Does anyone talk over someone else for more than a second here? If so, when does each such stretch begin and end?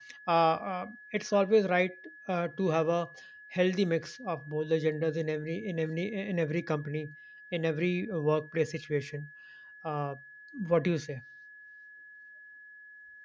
none

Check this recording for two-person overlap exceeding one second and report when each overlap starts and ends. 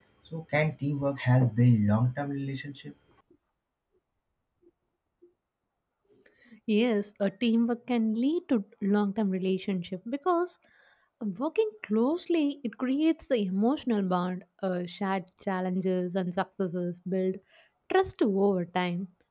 none

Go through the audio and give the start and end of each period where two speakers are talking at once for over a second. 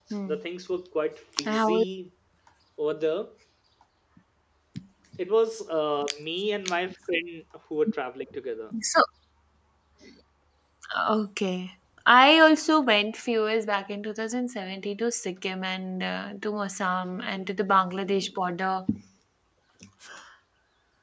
none

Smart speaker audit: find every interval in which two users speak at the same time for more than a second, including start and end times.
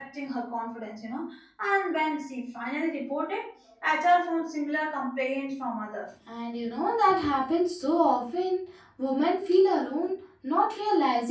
none

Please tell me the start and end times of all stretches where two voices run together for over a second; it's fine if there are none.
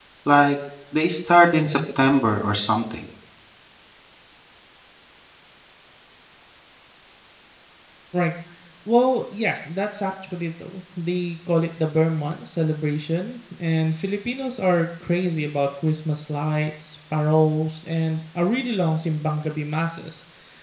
none

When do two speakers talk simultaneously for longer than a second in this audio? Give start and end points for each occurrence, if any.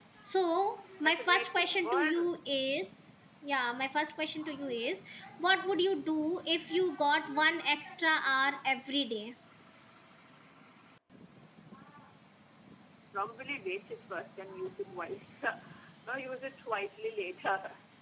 1.0-2.3

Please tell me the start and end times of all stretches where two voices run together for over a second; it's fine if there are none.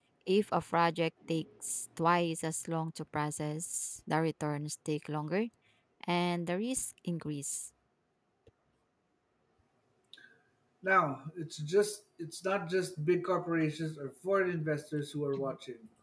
none

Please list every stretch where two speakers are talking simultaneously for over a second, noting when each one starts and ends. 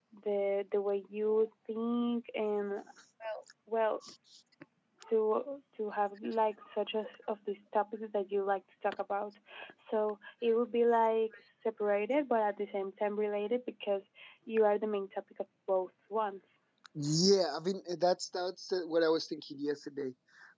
none

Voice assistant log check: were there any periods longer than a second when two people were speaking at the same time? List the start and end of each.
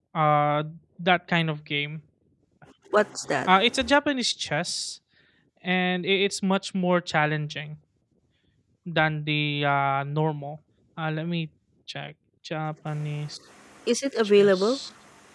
none

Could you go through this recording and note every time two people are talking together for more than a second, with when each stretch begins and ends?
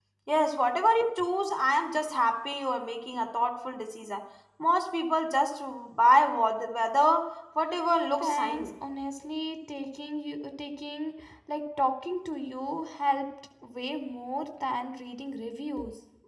none

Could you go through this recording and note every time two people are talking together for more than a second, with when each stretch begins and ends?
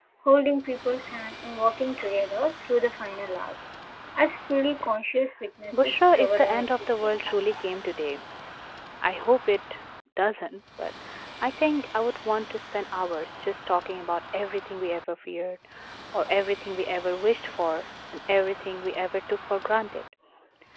5.7-7.2

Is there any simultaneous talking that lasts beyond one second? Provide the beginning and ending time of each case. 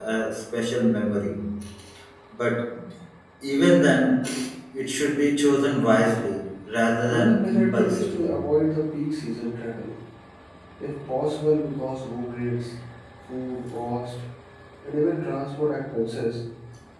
7.0-8.3

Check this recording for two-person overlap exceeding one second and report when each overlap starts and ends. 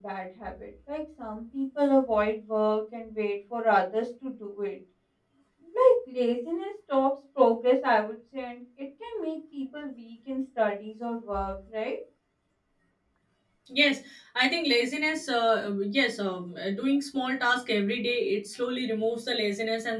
none

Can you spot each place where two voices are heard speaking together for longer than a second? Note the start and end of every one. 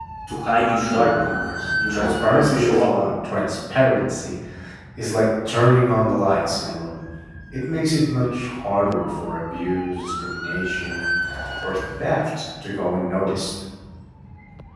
1.6-2.9

